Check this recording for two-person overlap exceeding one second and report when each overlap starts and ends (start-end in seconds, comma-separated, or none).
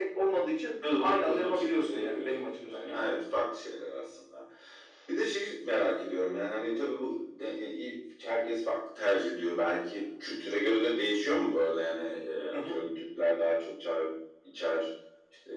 1.0-3.2